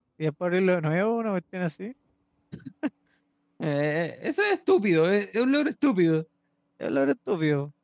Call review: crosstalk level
none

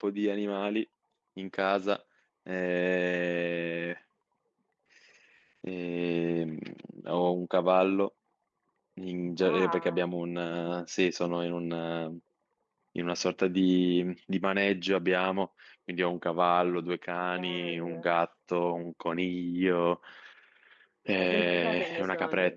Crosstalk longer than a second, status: present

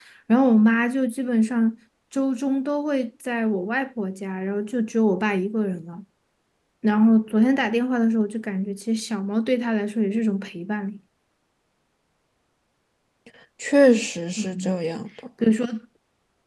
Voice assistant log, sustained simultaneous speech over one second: none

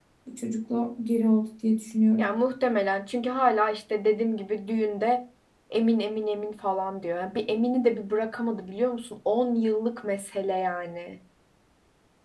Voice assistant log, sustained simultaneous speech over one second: none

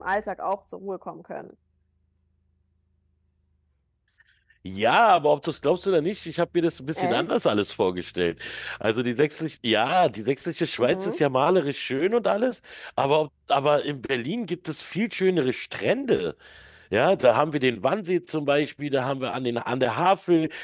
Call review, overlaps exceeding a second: none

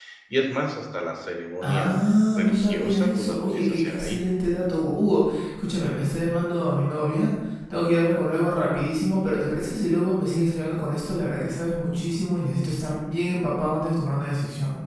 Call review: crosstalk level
present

